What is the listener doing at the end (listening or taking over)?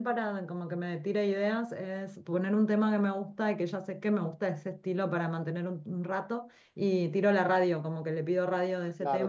taking over